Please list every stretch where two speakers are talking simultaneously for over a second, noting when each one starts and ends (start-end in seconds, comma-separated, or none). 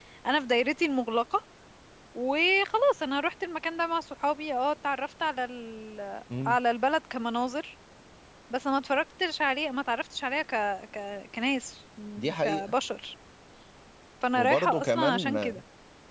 14.3-15.6